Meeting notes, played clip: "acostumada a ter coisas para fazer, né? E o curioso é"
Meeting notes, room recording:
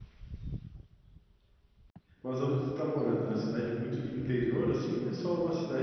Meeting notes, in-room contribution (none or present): present